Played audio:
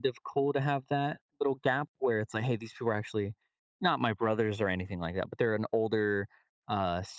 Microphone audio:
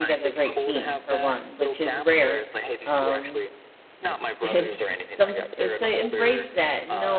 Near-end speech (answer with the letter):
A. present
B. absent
A